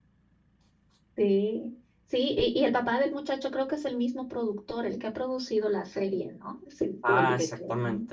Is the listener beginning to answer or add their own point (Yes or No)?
Yes